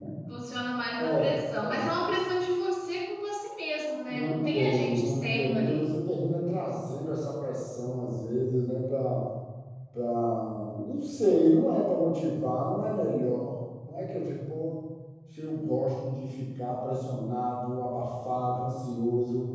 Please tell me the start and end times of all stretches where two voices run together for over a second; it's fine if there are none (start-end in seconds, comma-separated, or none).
4.1-5.8